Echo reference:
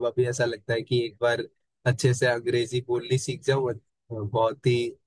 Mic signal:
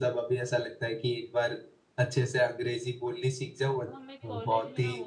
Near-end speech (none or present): present